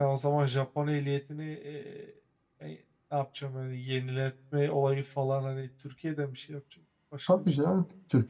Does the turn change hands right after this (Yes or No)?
Yes